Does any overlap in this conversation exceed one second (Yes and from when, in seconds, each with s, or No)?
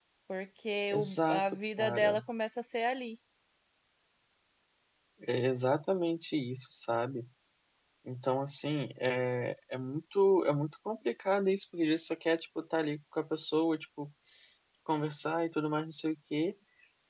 Yes, from 0.9 s